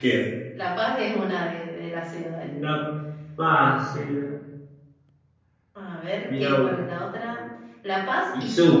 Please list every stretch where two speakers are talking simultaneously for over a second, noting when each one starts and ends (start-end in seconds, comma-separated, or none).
none